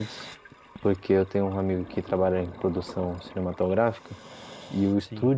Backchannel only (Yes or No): Yes